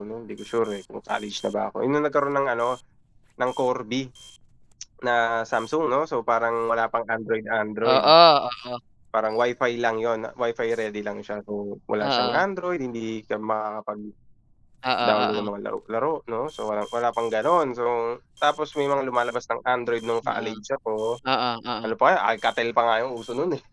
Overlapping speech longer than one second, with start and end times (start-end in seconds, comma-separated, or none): none